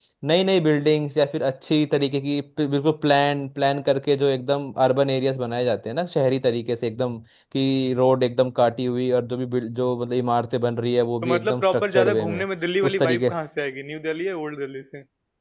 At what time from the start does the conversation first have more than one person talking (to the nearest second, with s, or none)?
11 s